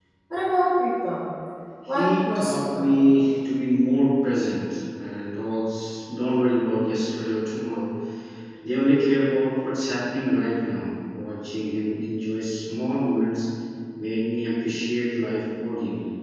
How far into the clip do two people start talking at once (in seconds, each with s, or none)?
1.9 s